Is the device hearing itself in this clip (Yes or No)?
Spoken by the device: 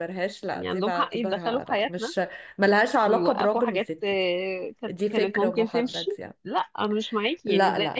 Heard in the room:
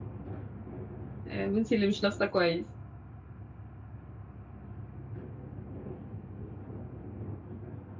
No